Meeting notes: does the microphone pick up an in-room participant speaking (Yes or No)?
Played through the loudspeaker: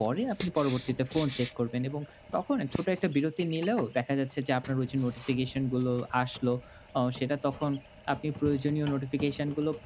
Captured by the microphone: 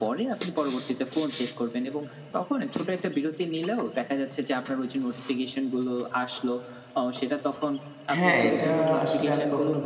Yes